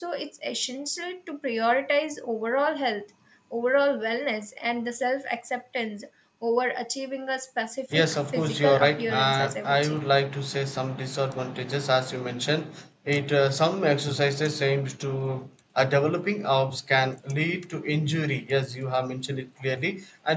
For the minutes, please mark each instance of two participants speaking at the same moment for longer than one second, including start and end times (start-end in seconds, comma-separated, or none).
7.9-10.0